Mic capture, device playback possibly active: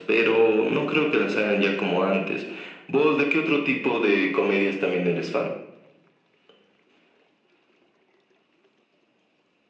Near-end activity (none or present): none